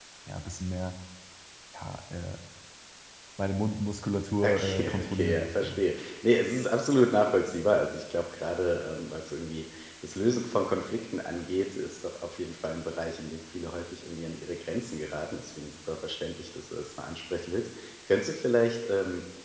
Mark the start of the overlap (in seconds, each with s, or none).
4.4 s